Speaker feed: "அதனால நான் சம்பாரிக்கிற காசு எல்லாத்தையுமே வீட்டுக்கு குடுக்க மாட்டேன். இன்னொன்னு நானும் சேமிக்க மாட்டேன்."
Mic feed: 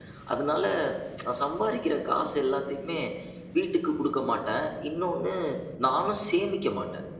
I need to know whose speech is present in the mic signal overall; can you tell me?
echo only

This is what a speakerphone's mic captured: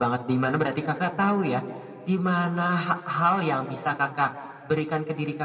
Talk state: echo only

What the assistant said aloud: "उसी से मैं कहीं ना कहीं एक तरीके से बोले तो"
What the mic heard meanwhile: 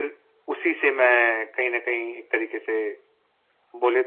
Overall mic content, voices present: echo only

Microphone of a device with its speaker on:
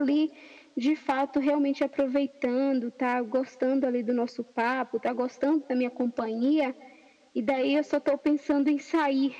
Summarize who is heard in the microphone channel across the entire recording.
echo only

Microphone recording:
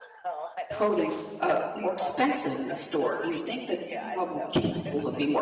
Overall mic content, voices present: both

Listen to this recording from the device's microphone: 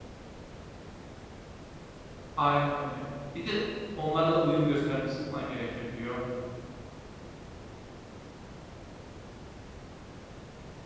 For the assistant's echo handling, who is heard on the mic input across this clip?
user only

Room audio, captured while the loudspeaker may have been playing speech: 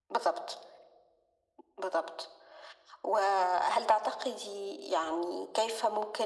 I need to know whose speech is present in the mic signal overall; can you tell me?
echo only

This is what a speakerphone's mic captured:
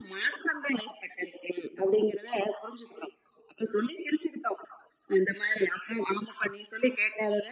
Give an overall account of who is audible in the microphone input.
echo only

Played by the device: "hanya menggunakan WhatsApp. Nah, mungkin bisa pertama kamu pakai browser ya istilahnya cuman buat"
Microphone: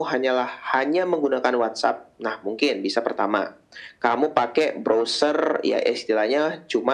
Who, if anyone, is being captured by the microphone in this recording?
echo only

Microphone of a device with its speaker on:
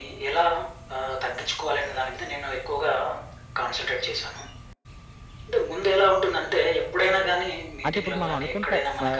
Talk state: both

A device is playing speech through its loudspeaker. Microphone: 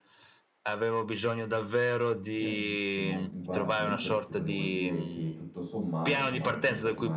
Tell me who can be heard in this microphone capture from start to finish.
both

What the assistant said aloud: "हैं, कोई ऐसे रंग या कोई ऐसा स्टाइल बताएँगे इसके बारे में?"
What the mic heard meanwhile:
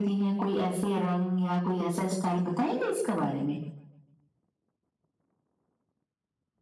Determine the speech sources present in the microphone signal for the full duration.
echo only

